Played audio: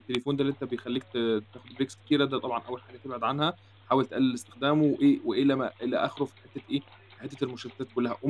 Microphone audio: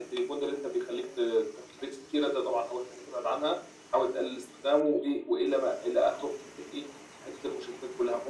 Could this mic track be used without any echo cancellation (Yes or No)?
No